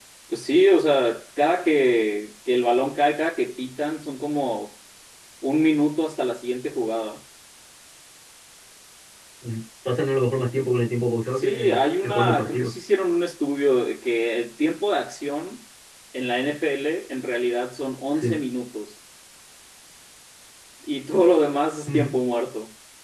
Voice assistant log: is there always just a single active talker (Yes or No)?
No